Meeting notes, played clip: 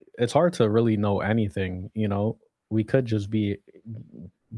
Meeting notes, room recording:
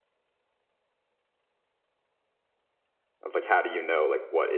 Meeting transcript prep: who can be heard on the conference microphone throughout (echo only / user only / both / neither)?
user only